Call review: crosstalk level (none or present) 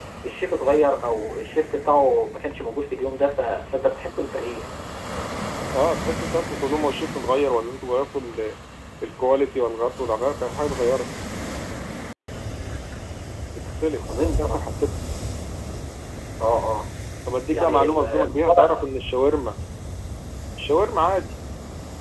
present